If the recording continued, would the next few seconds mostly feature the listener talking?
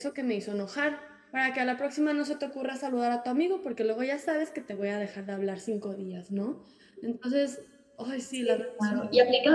Yes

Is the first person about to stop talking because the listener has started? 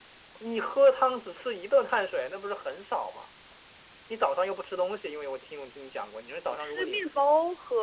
Yes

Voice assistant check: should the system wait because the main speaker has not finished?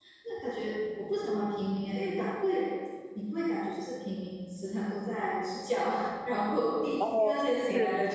Yes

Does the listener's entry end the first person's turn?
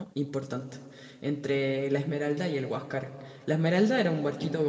No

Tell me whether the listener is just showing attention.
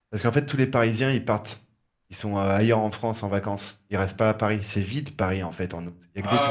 No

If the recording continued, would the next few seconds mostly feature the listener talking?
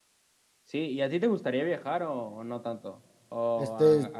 Yes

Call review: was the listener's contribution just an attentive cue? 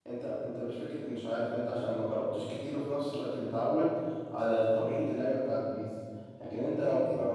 Yes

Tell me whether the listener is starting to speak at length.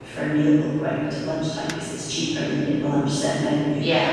No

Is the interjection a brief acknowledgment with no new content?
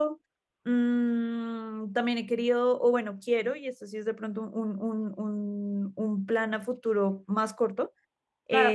No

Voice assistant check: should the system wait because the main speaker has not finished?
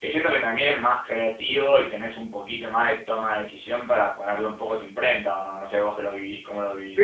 No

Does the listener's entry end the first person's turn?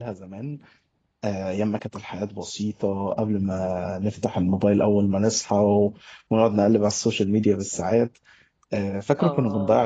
No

